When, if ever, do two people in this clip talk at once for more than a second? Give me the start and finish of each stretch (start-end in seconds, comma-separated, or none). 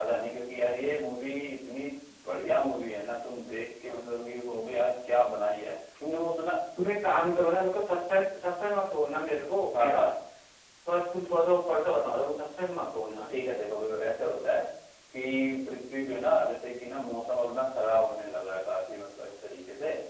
none